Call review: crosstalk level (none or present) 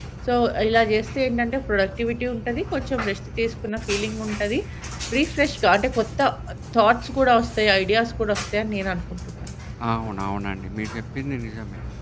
none